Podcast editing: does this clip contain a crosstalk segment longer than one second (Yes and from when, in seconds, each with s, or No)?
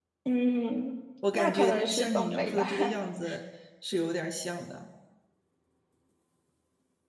Yes, from 1.2 s